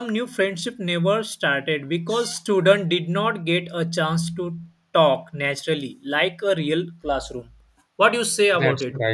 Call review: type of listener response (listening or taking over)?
taking over